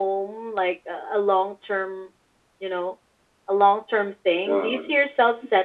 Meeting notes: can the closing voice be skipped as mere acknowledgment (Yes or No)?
Yes